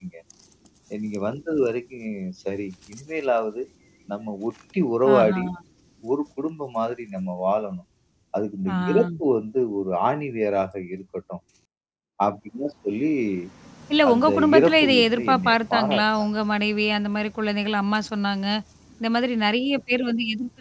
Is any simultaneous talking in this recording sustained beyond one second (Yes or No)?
Yes